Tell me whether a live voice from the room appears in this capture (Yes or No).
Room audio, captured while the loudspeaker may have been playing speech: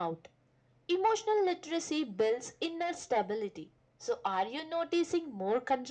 No